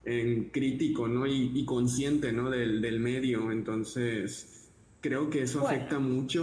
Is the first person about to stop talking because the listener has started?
No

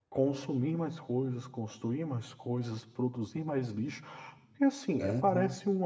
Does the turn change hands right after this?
No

